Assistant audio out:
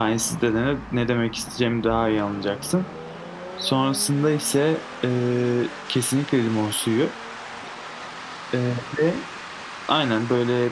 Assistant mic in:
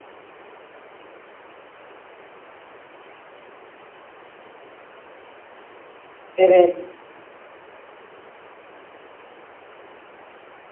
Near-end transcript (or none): Evet.